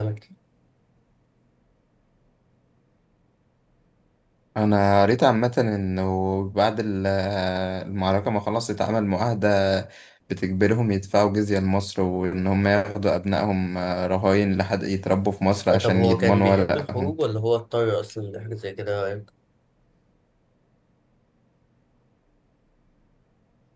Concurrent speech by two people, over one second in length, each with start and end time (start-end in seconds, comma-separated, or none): 15.8-17.2